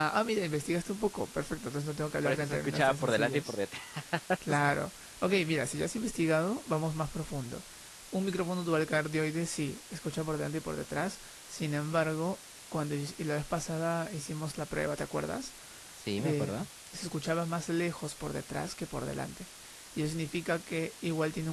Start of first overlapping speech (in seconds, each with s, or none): 2.2 s